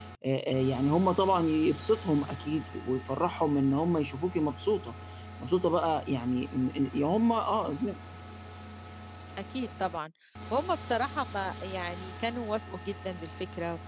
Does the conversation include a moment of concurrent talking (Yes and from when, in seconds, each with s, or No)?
No